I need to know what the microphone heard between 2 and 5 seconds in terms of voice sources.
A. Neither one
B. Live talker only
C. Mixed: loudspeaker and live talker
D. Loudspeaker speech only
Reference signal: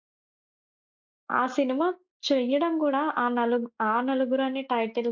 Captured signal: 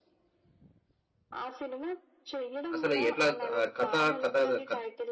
C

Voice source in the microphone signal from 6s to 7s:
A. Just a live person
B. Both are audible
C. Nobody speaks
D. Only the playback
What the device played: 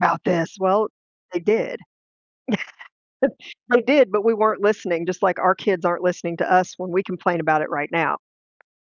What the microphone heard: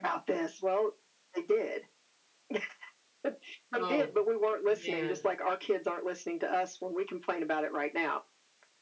D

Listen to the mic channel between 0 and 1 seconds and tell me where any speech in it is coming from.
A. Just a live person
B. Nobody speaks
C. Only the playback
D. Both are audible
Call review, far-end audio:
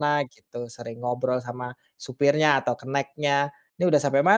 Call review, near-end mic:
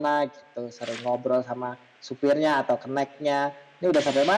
C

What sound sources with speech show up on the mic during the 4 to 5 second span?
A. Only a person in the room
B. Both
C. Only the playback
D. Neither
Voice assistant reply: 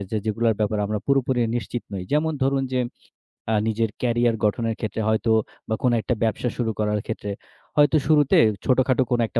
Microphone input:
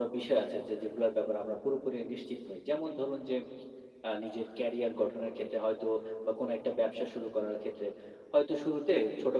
C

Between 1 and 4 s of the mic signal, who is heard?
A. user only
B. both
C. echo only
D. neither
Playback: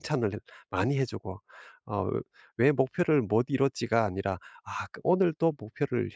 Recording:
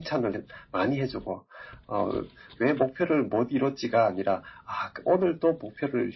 C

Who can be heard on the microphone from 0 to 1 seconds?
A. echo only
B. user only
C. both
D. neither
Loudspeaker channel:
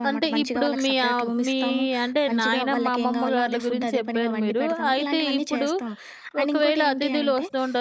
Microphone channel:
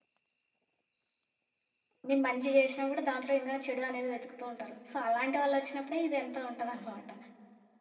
D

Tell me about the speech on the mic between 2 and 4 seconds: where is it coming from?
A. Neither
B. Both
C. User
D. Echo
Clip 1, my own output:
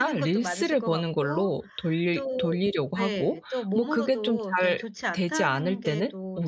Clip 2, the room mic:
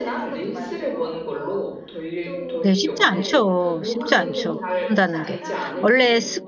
B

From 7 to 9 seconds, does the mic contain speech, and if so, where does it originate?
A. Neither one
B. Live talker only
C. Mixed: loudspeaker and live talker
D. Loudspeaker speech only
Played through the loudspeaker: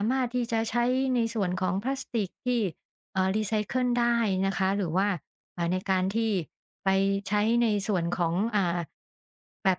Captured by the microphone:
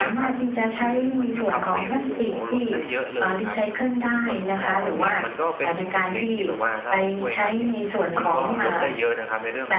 C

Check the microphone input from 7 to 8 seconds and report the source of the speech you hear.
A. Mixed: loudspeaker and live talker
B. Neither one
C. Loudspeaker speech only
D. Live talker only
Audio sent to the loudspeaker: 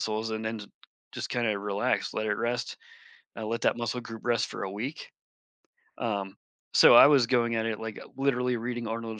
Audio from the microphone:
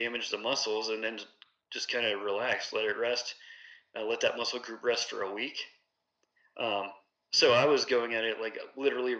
C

